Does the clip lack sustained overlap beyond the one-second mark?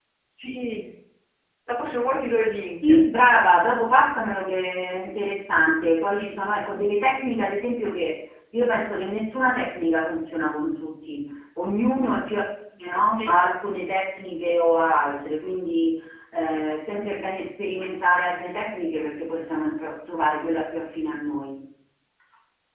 Yes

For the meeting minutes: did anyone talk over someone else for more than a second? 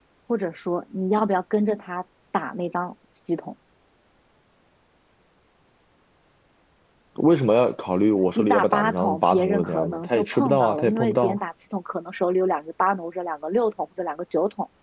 Yes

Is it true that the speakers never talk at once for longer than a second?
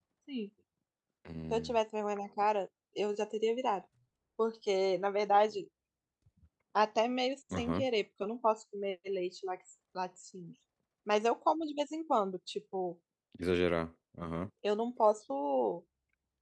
Yes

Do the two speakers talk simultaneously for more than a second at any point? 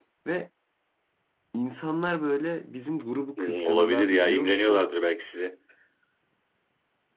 Yes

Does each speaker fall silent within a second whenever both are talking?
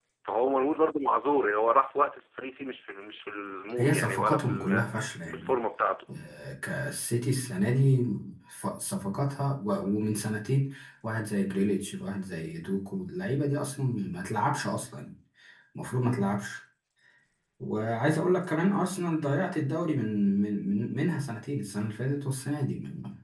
No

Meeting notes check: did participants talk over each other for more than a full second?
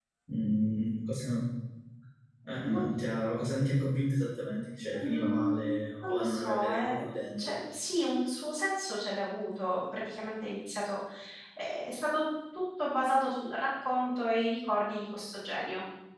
Yes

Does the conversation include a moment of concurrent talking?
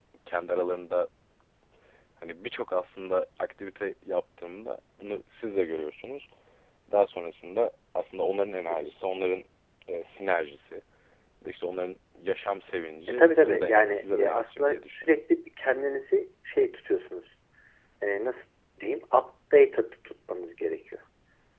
Yes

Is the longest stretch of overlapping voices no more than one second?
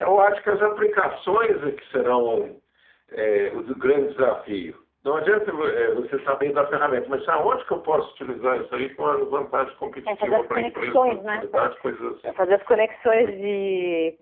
No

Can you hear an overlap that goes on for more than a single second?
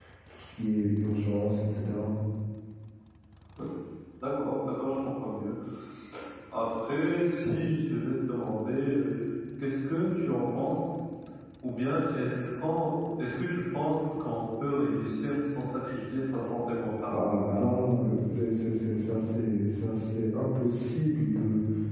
No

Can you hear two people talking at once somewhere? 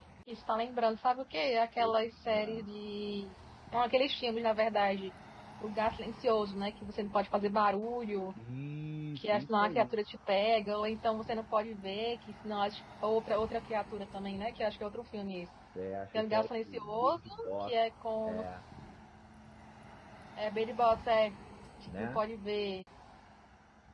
Yes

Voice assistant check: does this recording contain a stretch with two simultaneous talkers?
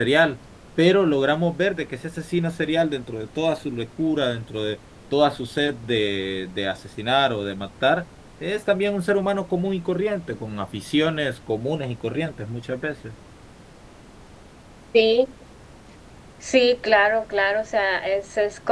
No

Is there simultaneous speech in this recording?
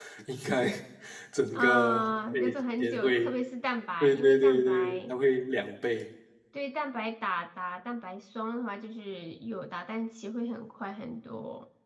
Yes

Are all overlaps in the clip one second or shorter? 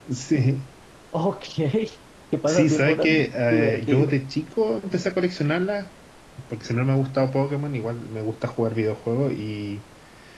No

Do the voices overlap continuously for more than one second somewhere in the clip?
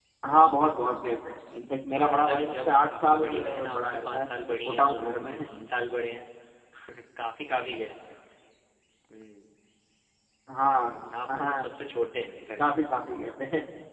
Yes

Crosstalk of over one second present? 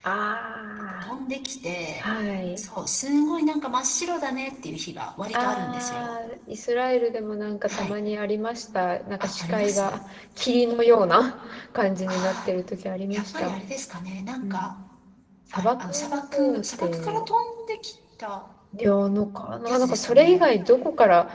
Yes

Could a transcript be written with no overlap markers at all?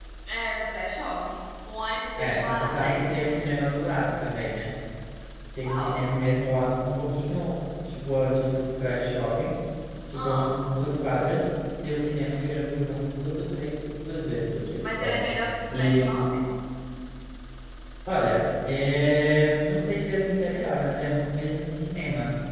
No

